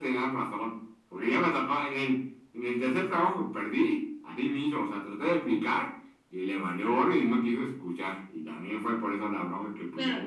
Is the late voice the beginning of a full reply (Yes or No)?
Yes